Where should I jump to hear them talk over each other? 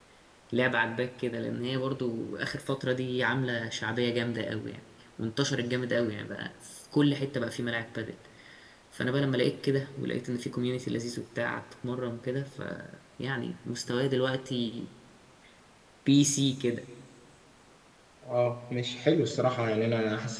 none

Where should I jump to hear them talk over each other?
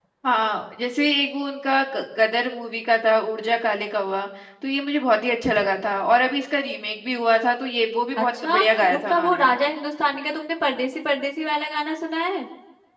8.2 s

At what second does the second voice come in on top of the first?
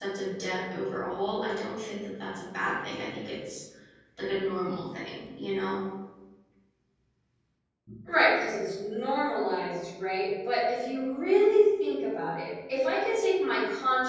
none

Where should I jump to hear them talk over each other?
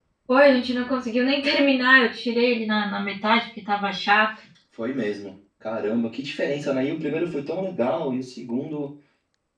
none

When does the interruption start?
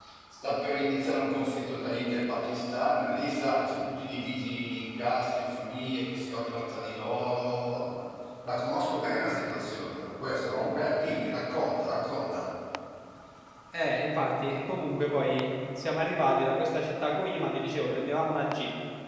none

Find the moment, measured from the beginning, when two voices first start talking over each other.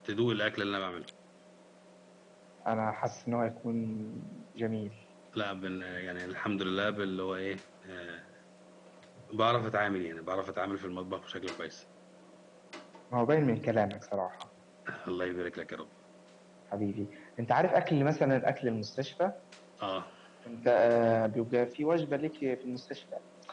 none

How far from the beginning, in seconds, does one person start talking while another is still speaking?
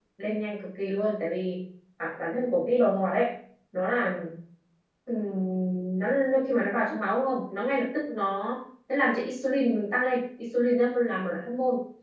none

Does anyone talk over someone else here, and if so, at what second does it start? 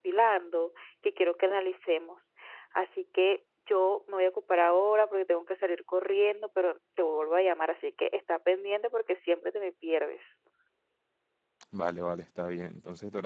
none

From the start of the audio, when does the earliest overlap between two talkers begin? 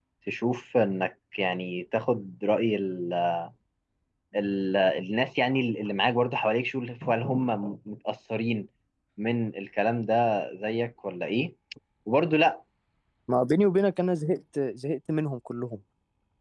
none

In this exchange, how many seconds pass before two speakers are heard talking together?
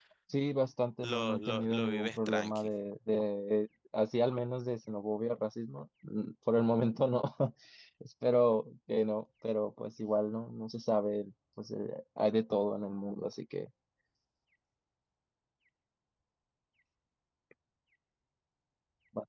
1.0 s

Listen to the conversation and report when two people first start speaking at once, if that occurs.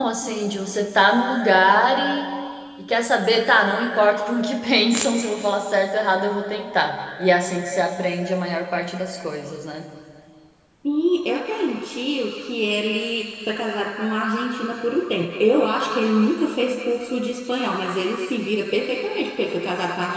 none

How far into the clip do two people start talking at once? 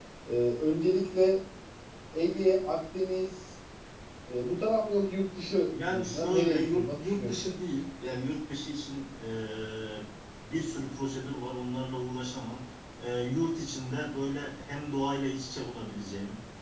5.7 s

